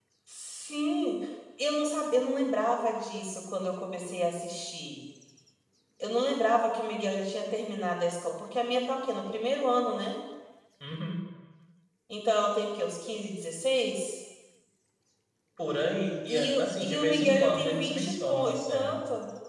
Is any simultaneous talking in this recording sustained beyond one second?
Yes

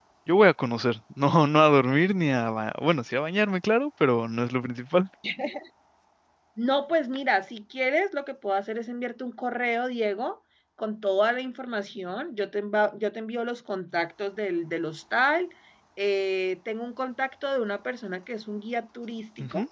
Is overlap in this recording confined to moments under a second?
Yes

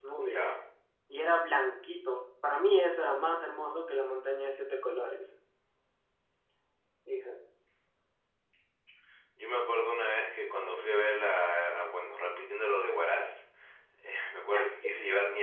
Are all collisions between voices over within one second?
Yes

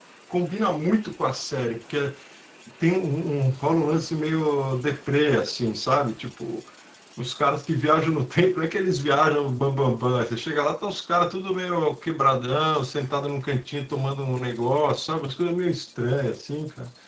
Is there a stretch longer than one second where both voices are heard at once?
No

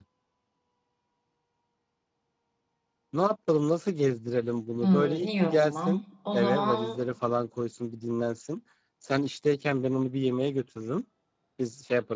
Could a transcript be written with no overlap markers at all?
No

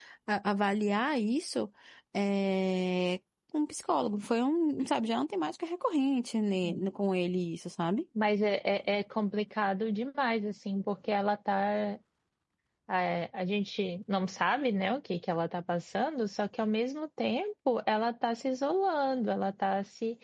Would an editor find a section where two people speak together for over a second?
No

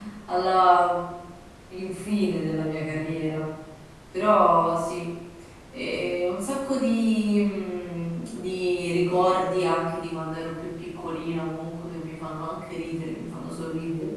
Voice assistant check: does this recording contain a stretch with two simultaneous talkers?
No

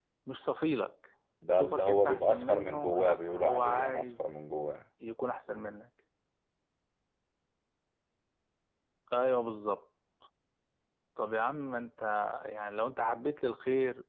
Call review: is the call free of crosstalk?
No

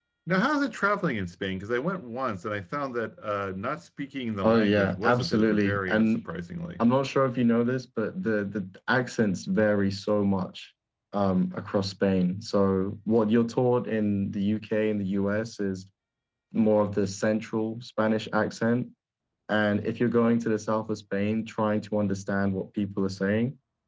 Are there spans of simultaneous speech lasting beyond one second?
Yes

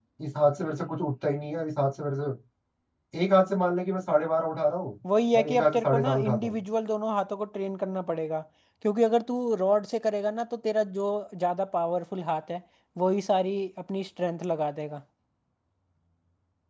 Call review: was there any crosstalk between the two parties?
Yes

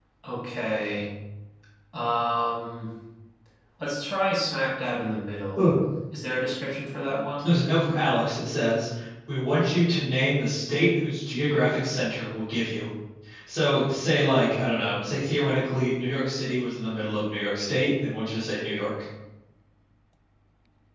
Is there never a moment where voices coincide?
Yes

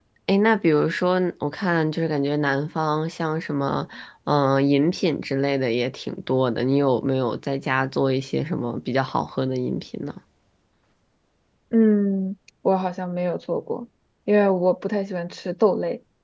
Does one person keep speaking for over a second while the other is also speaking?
No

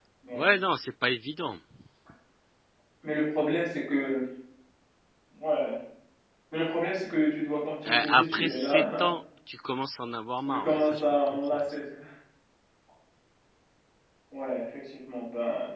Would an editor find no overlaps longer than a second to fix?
No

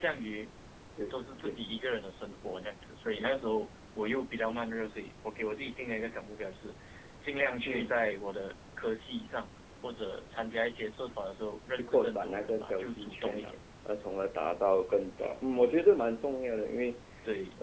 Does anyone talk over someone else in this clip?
Yes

